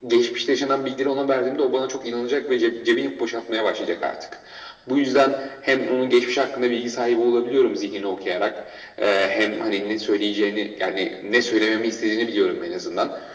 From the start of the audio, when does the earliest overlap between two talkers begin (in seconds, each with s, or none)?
none